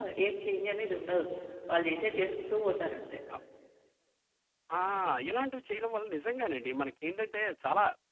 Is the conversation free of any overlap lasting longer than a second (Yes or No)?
Yes